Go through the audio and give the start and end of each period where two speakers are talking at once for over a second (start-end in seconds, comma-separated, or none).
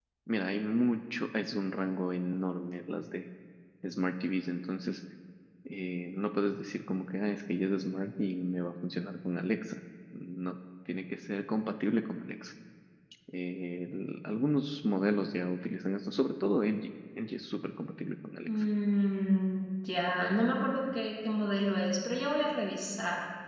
none